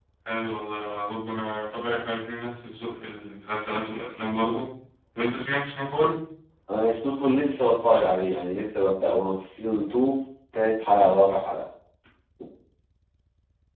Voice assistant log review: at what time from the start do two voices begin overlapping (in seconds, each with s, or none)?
none